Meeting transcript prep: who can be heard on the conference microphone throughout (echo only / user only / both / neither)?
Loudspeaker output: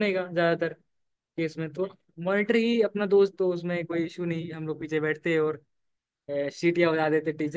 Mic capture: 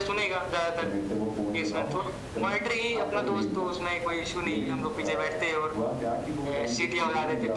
both